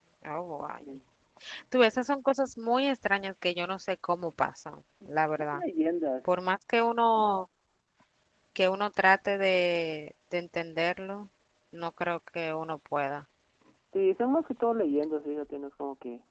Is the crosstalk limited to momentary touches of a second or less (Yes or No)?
Yes